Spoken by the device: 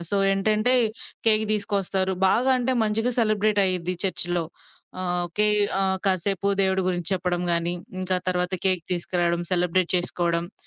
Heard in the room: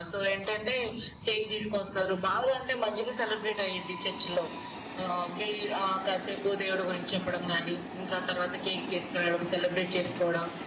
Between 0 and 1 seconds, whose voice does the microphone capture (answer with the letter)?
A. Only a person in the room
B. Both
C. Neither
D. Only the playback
D